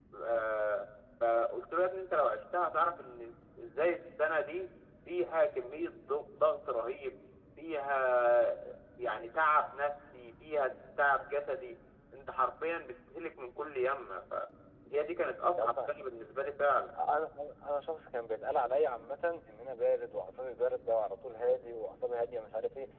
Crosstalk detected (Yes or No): No